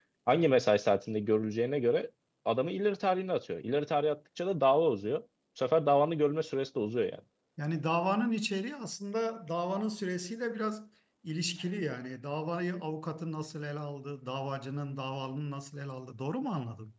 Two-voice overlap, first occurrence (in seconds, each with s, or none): none